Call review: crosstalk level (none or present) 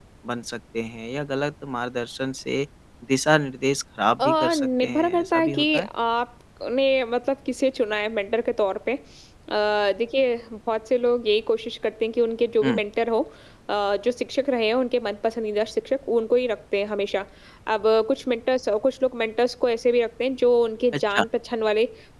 present